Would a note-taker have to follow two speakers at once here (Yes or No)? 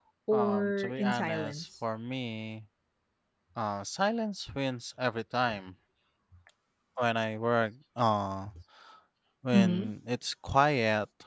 Yes